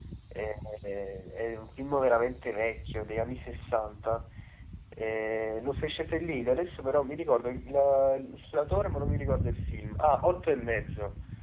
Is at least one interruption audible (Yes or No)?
No